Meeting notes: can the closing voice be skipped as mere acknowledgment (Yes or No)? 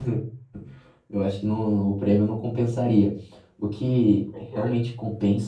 Yes